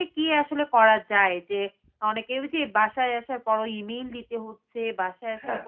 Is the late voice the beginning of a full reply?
No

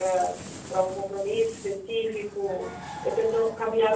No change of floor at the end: Yes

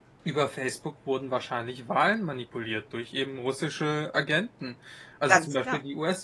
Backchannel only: Yes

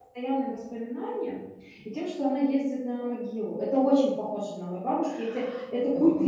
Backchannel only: No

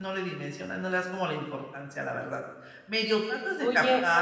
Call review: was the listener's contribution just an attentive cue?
No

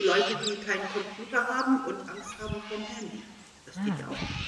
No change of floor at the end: No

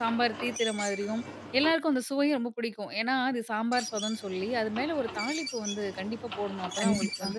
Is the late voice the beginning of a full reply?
No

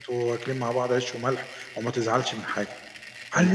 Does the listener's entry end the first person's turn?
Yes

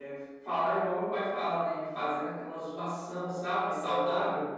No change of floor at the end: No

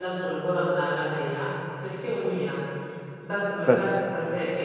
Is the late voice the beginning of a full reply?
No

